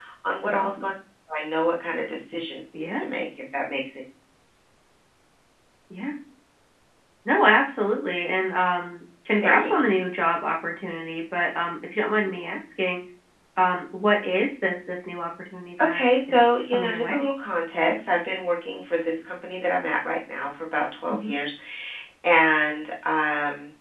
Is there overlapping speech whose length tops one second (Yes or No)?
Yes